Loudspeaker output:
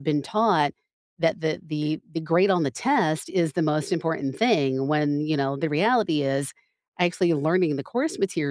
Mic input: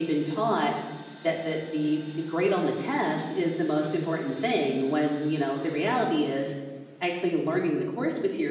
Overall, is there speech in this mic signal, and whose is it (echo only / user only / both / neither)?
echo only